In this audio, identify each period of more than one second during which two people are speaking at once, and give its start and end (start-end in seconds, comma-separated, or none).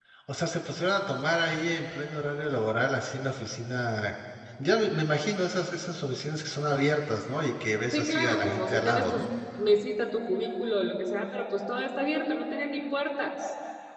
7.9-9.2